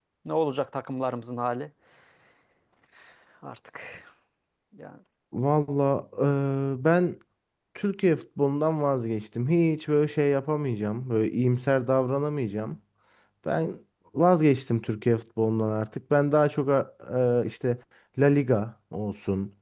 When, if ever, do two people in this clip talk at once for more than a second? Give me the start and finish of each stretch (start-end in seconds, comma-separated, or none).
none